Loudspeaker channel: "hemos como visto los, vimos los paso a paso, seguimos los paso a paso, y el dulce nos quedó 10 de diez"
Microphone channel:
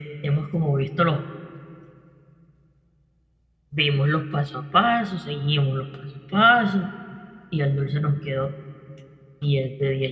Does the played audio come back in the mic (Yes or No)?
Yes